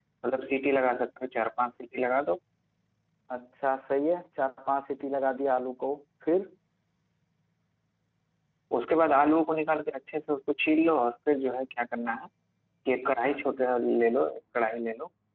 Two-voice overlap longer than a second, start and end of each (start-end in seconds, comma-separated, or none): none